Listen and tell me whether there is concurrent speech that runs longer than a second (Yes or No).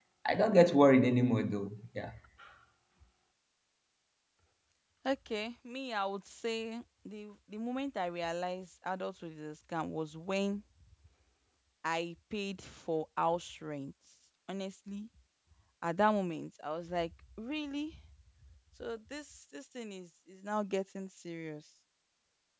No